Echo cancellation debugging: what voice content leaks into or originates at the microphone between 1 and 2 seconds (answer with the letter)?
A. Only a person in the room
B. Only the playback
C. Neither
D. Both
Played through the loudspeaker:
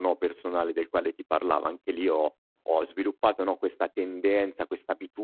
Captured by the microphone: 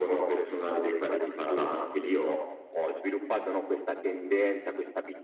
B